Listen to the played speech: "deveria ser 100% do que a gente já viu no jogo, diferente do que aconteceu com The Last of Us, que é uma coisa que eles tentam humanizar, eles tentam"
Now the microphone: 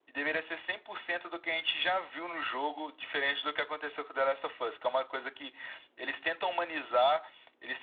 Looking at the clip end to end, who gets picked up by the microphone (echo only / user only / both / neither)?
echo only